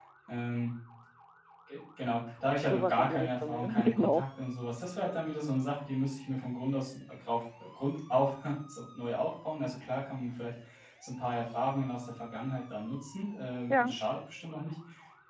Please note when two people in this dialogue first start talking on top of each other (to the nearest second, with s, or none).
3 s